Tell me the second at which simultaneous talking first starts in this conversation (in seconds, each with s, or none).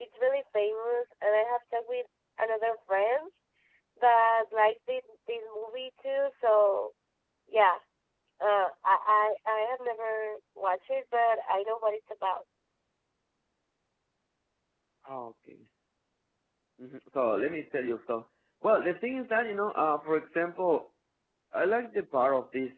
none